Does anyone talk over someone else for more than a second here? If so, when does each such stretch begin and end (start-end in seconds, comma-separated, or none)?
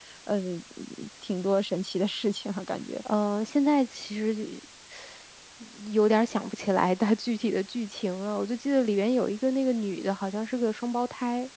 none